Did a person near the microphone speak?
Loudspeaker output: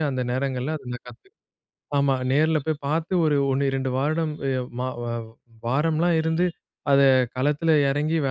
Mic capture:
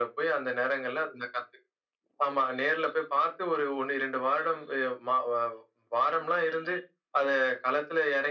No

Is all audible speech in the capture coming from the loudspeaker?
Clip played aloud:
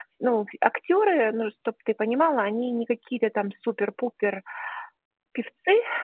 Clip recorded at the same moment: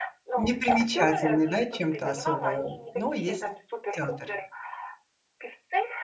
No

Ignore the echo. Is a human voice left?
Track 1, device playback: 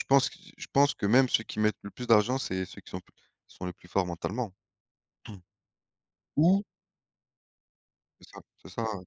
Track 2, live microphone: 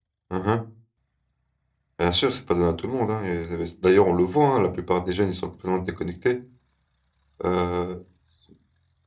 Yes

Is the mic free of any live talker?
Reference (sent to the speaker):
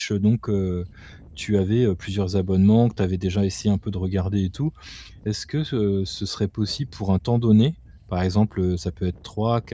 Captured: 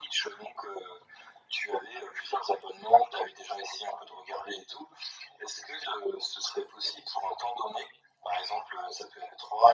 Yes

